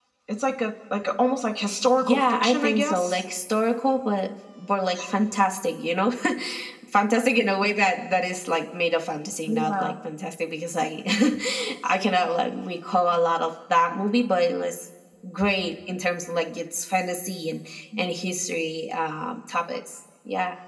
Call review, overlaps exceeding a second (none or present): present